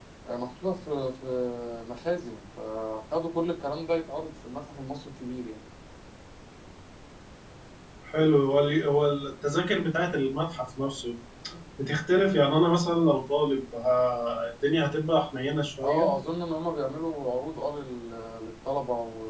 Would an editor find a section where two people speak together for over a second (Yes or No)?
No